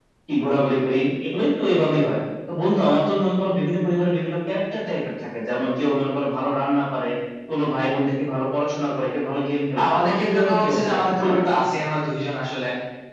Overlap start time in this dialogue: 9.8 s

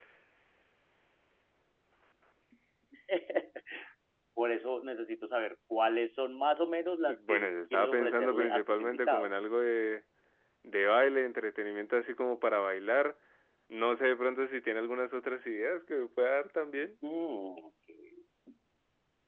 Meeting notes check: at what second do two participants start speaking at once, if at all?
7.1 s

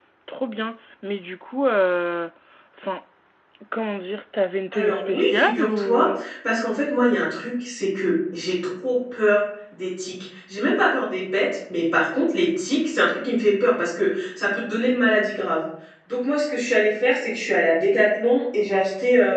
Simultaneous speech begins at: 4.7 s

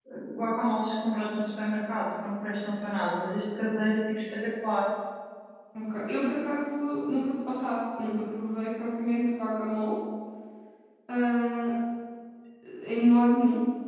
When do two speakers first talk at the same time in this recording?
none

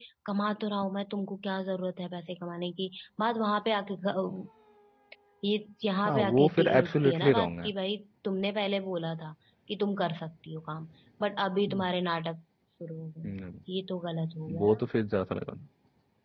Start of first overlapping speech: 6.0 s

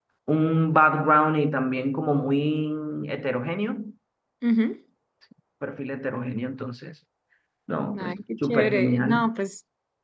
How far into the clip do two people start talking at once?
8.0 s

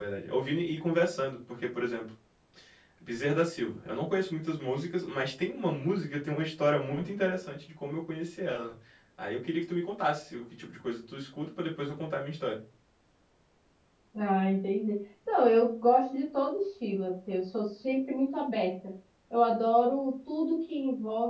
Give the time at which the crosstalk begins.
none

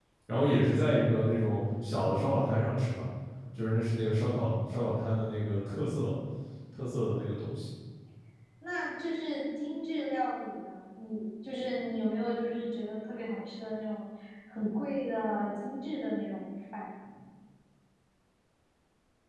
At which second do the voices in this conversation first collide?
none

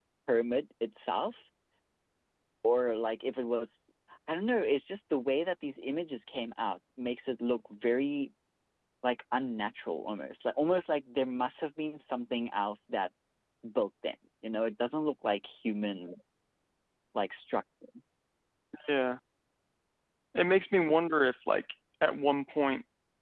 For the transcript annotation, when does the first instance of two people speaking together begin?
none

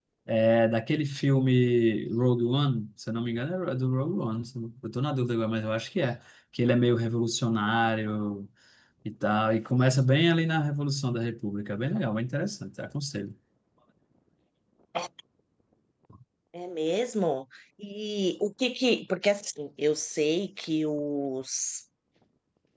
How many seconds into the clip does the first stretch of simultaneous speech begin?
none

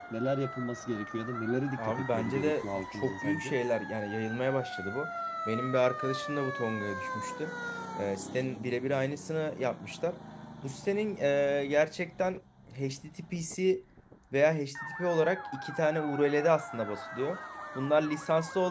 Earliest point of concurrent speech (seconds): 1.8 s

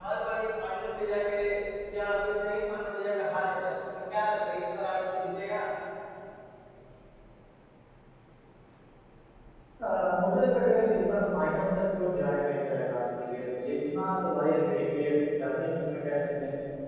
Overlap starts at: none

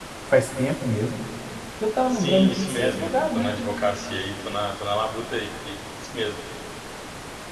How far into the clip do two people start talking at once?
2.1 s

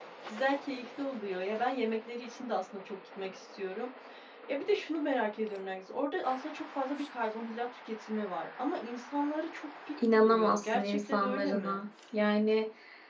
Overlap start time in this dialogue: 10.0 s

